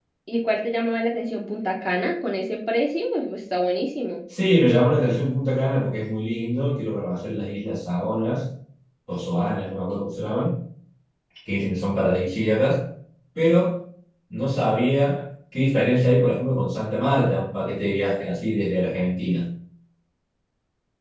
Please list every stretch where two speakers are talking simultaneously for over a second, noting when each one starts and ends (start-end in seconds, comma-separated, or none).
none